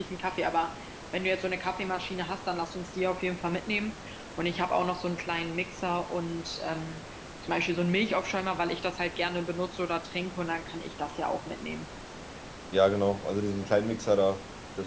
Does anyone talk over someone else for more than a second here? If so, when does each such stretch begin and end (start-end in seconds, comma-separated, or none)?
none